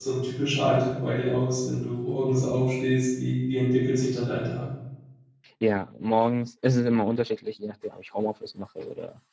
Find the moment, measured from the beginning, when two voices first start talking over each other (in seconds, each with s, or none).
none